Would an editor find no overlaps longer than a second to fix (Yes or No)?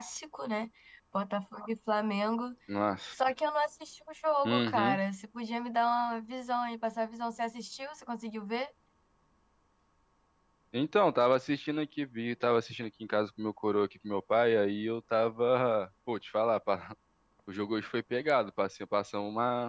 Yes